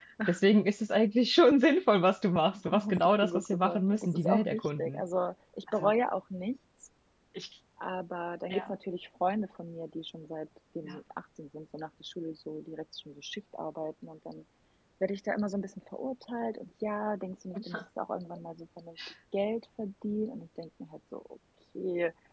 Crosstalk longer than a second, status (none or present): present